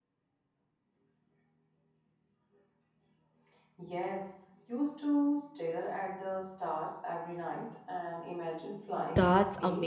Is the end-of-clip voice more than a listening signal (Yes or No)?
Yes